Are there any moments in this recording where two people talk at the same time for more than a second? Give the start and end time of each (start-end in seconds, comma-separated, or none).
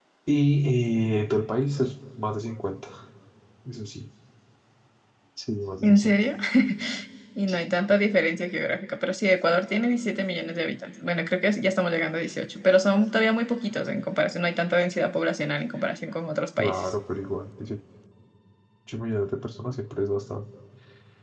none